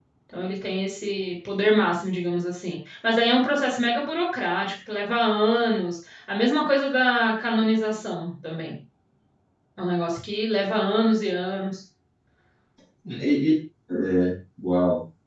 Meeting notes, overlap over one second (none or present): none